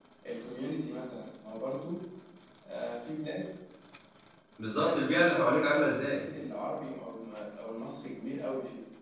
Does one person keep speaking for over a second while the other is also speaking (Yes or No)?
Yes